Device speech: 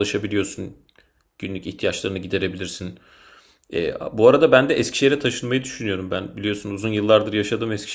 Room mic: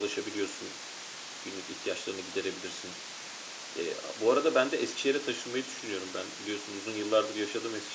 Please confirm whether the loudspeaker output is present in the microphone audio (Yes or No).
Yes